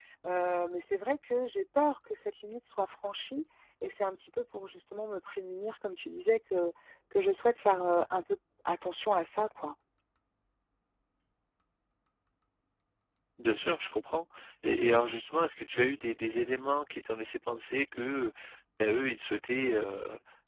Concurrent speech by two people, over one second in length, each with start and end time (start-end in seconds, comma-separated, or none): none